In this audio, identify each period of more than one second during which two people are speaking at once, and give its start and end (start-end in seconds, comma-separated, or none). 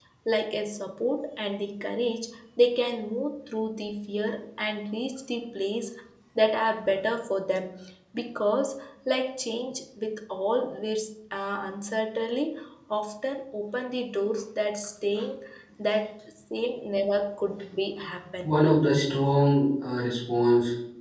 none